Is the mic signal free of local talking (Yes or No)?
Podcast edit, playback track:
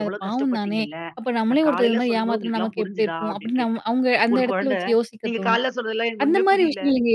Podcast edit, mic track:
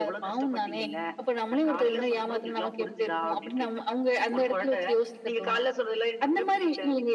Yes